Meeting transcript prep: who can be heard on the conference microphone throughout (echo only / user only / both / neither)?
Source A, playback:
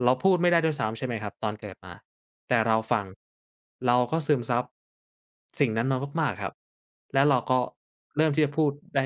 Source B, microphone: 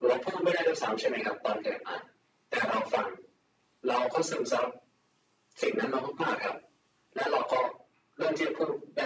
echo only